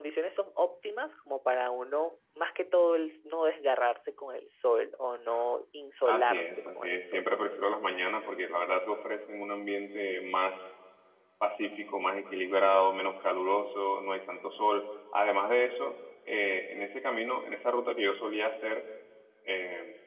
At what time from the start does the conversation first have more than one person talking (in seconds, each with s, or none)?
6.0 s